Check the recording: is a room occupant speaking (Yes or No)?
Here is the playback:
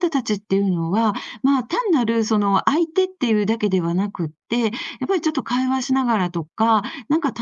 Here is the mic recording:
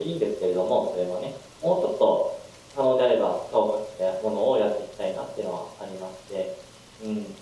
Yes